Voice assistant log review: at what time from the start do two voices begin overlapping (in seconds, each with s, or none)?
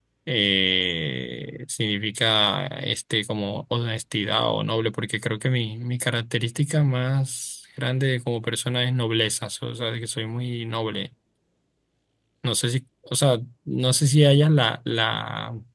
none